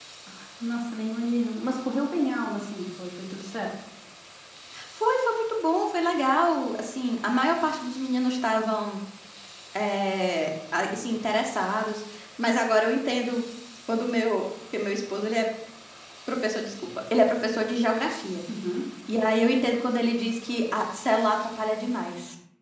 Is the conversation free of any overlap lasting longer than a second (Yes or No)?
Yes